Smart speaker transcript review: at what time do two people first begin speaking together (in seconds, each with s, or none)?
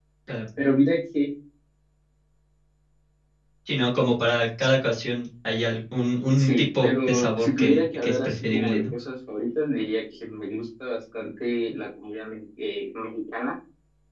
6.4 s